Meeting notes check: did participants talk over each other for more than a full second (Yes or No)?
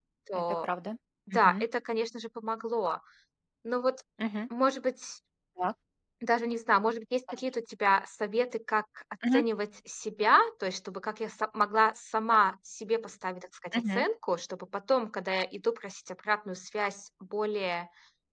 No